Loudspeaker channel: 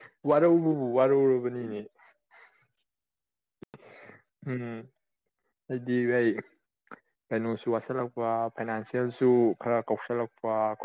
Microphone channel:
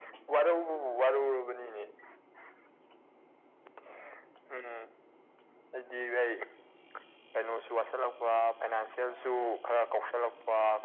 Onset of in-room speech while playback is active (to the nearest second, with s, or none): none